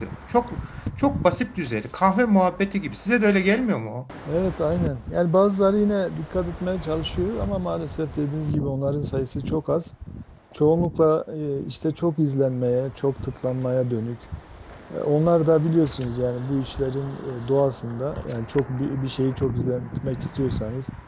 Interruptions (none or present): none